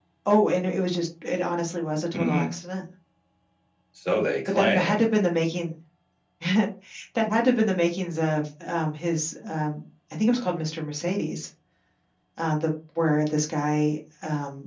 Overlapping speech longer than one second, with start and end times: none

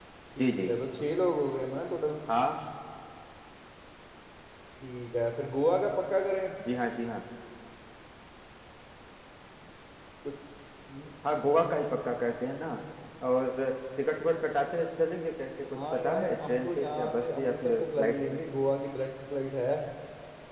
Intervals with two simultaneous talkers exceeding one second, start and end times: 15.9-18.4

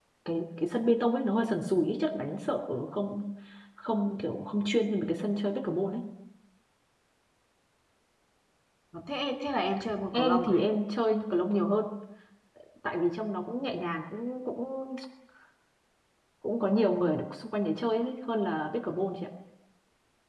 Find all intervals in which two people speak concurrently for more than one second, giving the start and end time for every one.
none

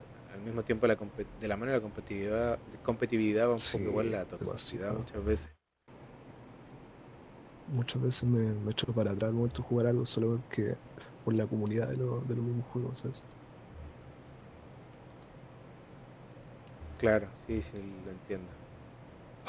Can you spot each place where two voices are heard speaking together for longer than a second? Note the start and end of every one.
3.6-5.1

